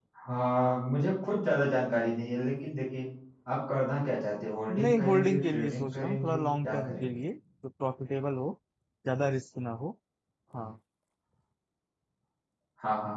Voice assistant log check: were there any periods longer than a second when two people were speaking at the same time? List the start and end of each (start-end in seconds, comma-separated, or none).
4.8-7.1